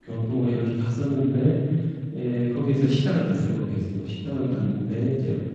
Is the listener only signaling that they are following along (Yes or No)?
Yes